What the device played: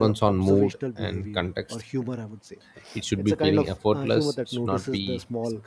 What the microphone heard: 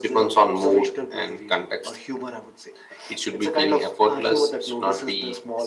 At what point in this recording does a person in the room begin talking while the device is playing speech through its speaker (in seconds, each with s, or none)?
none